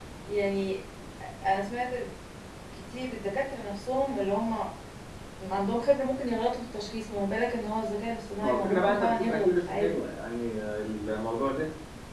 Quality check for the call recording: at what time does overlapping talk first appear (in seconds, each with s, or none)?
8.4 s